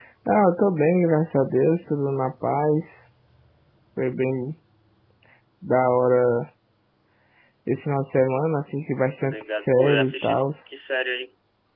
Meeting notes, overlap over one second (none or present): present